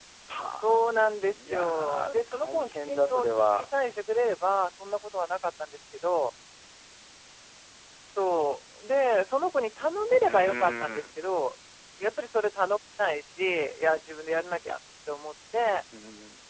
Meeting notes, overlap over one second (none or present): present